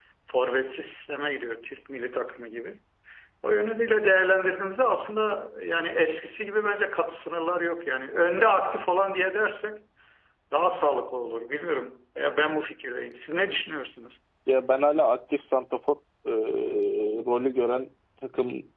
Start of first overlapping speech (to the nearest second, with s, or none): none